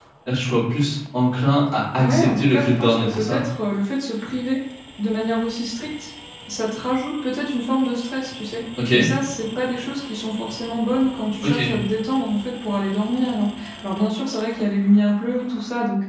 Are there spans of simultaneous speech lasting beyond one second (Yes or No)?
Yes